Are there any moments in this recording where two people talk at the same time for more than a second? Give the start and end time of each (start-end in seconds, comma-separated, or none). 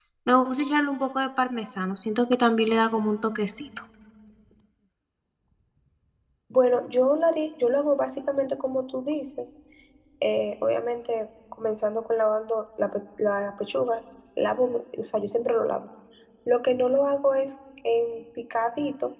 none